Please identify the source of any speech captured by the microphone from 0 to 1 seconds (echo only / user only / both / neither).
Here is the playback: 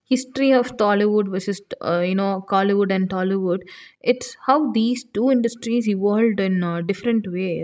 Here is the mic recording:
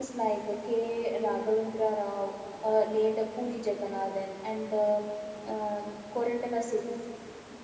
user only